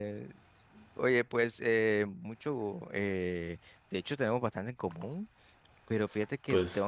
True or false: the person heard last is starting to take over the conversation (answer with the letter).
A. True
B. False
B